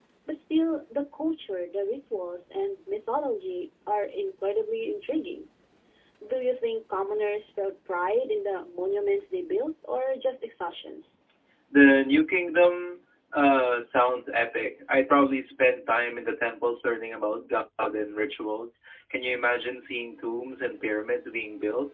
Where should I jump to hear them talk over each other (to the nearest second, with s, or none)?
none